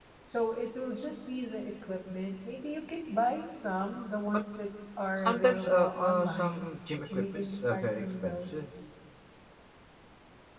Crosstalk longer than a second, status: present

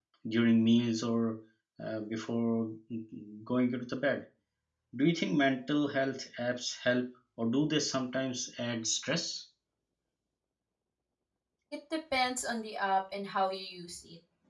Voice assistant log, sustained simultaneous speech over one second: none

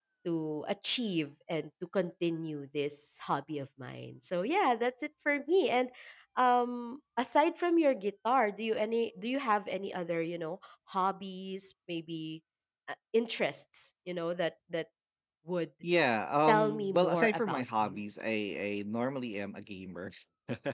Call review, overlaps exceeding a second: present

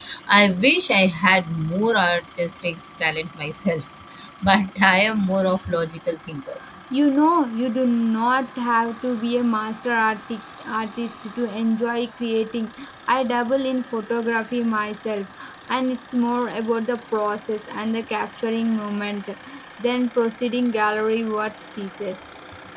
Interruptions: none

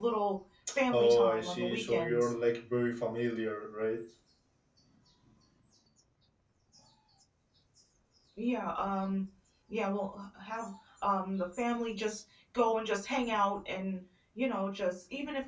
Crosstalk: present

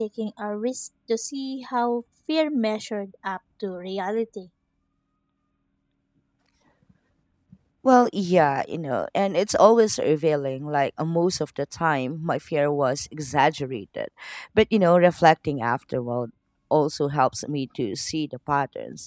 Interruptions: none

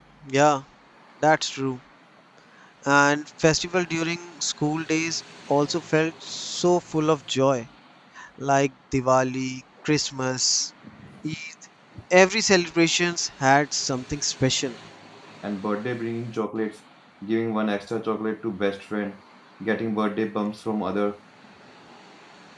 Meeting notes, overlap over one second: none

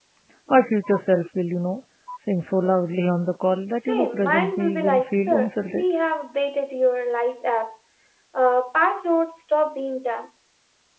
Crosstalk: present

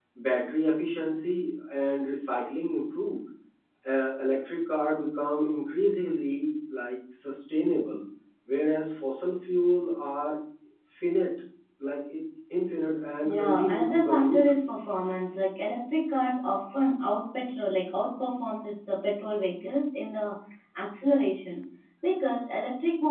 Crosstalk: present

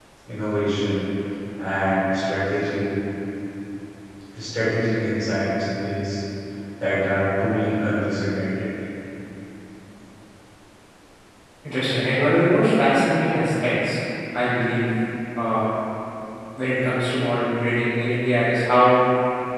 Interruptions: none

